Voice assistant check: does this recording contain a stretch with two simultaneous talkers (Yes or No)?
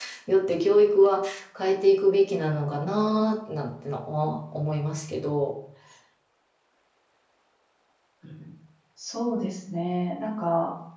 No